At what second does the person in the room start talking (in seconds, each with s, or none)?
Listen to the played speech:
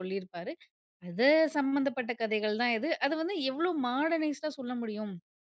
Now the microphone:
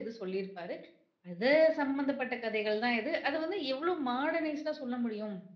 none